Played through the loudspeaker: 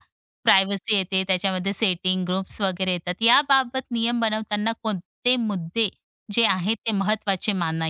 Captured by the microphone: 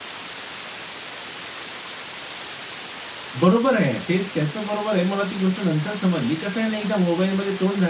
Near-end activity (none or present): present